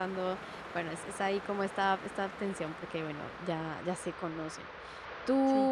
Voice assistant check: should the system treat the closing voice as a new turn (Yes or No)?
No